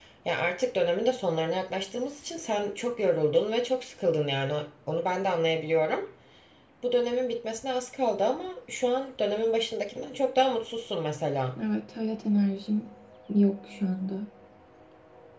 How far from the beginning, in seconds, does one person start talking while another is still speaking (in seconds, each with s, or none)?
none